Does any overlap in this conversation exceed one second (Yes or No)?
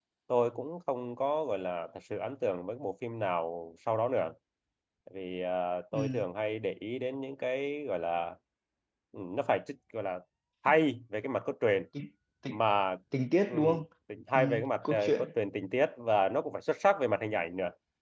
No